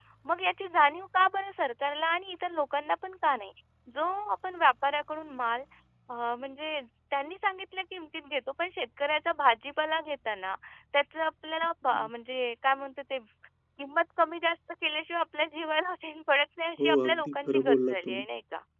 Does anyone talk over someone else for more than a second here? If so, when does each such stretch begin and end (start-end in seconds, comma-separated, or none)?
16.8-18.2